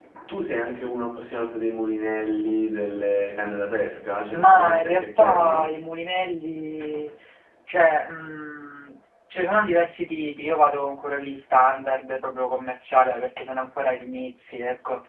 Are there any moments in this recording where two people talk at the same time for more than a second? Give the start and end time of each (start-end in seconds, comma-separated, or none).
4.3-5.9